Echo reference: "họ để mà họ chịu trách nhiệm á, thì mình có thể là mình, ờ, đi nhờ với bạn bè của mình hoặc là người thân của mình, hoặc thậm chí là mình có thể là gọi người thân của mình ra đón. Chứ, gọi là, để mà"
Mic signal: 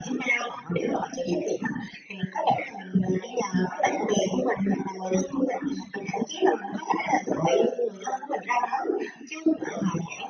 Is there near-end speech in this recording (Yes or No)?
No